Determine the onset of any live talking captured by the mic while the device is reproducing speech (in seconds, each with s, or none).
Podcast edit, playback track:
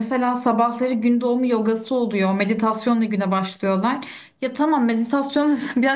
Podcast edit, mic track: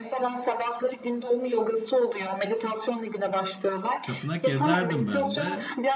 4.0 s